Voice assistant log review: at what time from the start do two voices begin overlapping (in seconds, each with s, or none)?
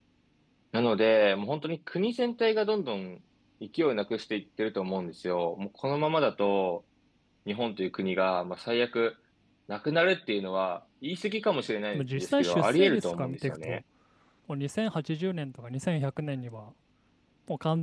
11.9 s